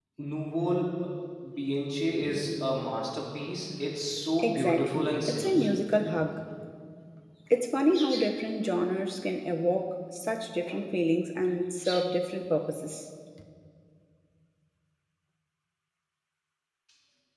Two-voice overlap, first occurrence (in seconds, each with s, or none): 4.4 s